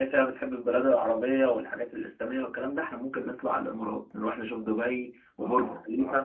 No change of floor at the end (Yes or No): No